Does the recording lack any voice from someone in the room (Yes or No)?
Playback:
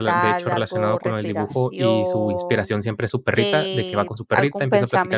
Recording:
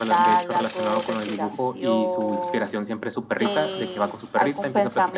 Yes